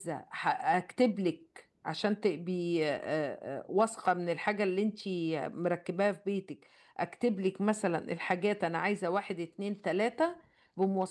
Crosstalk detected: No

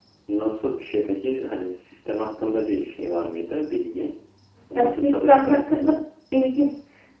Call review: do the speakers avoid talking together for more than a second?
No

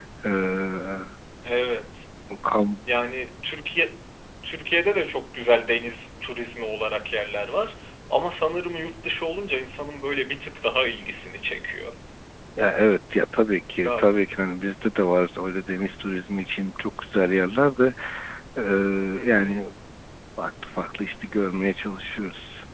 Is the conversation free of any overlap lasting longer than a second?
Yes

